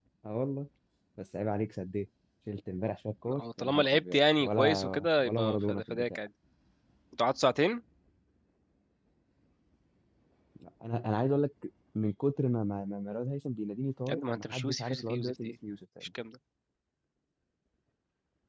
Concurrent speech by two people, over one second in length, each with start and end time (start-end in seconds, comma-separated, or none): 3.4-6.2, 14.1-15.5